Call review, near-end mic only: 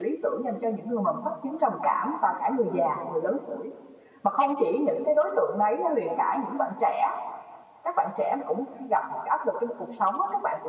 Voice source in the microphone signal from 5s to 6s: user only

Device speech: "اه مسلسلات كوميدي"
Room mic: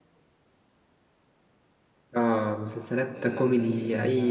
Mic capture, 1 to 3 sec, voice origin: echo only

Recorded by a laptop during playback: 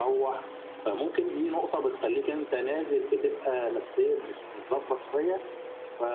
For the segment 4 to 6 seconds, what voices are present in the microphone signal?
echo only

